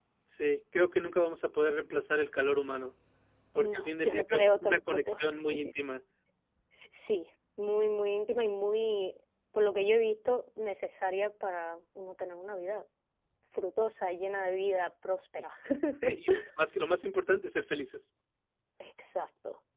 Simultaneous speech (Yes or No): Yes